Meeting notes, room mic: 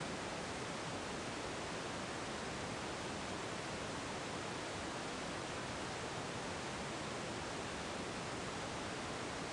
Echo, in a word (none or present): none